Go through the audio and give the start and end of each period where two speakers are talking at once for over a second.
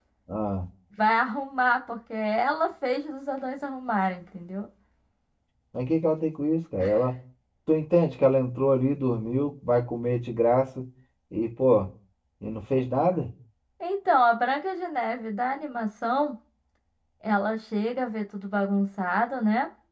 none

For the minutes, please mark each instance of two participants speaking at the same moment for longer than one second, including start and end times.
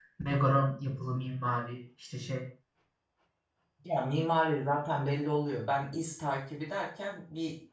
none

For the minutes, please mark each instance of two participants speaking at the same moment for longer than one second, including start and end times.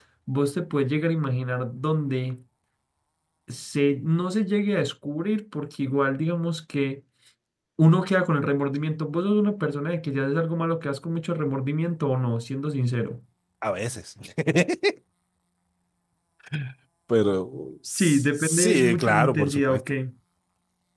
17.9-19.8

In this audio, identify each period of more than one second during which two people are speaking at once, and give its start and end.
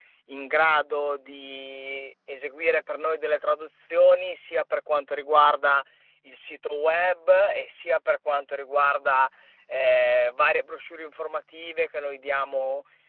none

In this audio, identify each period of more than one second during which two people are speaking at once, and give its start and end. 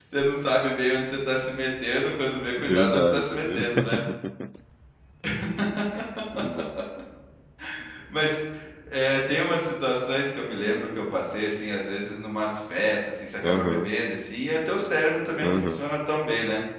2.6-4.0

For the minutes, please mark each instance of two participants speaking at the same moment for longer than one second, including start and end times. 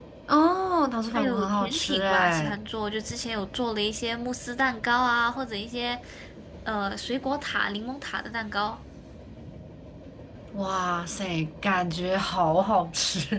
1.1-2.5

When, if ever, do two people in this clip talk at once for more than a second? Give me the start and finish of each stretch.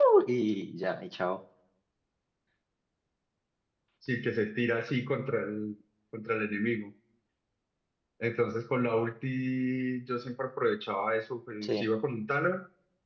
none

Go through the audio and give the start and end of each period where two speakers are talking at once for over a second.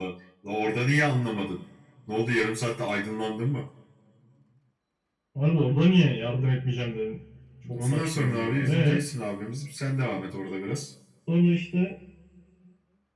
7.8-9.0

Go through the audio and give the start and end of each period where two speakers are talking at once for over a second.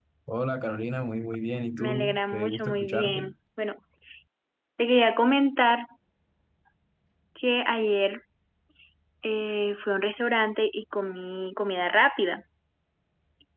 1.8-3.3

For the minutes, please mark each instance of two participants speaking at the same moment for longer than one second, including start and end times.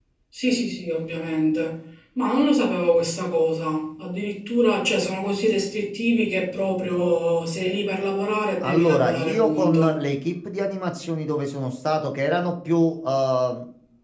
8.6-10.0

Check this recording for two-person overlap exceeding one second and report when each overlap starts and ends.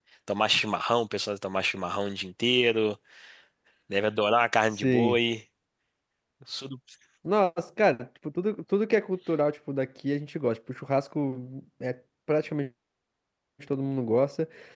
none

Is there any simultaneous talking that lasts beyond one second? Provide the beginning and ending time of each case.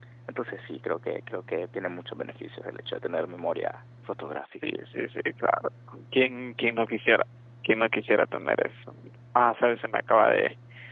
none

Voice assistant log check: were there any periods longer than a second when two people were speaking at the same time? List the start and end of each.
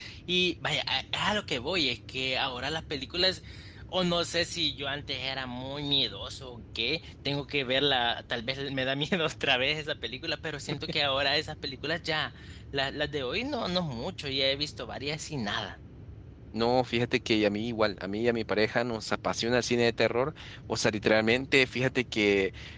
none

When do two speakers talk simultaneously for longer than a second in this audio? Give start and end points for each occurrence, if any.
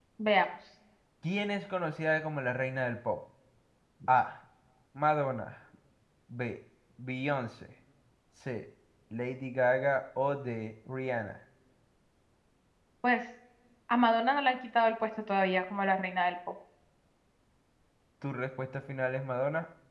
none

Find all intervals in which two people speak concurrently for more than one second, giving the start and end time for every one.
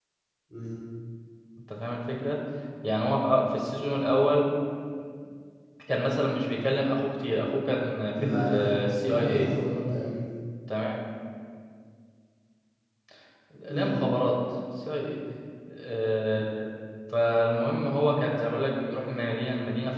8.2-9.5

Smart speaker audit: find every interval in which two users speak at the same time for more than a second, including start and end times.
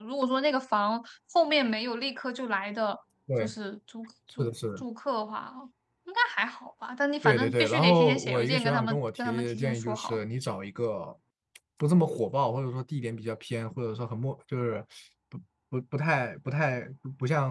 7.2-10.2

